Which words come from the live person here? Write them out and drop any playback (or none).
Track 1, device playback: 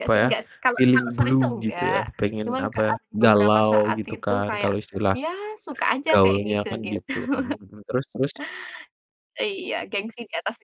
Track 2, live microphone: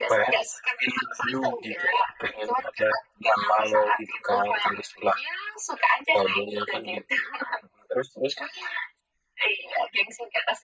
none